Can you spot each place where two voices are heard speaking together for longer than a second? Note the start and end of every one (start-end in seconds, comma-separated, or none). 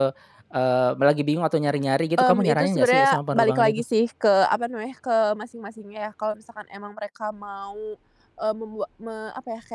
2.2-3.8